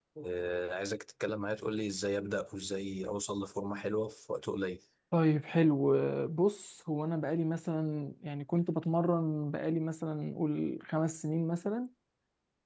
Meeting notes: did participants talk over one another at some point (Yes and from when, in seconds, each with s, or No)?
No